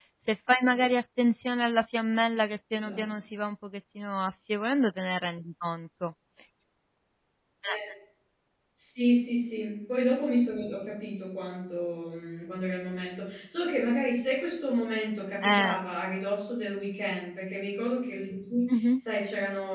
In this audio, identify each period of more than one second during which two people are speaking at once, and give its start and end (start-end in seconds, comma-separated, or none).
none